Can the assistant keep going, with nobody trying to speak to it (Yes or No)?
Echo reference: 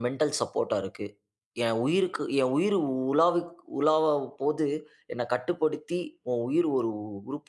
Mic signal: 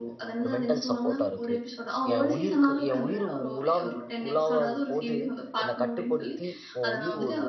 No